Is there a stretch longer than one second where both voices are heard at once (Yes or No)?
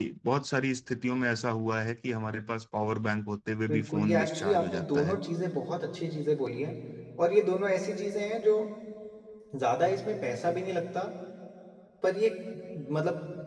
Yes